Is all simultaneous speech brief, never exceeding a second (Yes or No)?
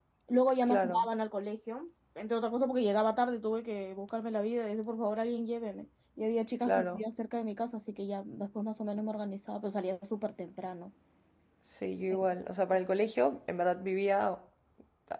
Yes